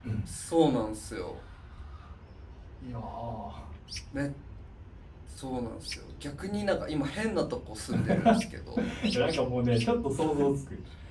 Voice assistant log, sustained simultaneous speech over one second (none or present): none